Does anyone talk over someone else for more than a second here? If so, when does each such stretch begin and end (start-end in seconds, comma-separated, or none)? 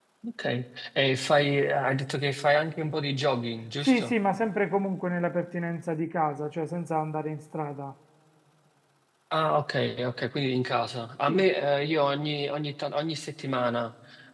none